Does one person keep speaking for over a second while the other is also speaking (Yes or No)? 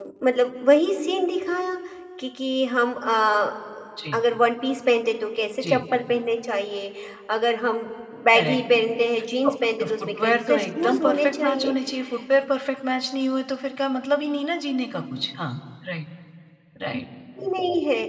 Yes